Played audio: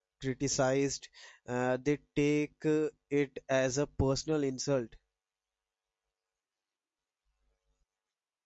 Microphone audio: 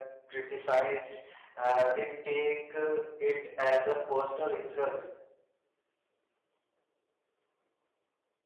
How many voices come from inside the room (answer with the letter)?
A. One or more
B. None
B